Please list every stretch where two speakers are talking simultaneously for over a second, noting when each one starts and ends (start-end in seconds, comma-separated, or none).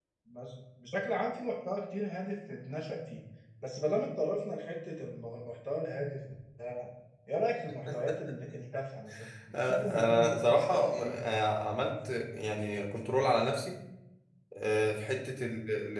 9.5-11.3